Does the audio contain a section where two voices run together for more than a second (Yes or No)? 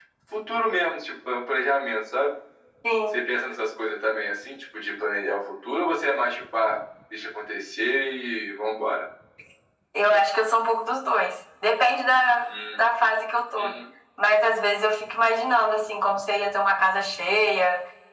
No